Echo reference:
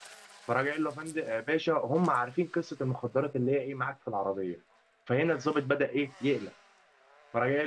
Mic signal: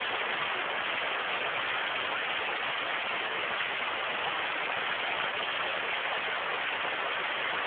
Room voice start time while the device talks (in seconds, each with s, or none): none